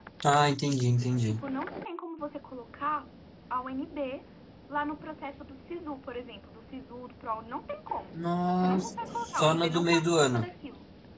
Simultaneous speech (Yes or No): Yes